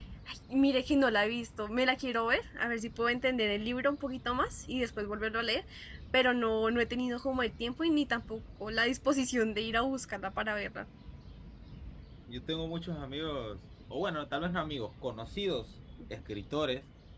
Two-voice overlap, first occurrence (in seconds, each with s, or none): none